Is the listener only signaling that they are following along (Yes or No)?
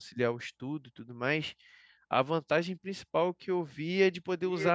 Yes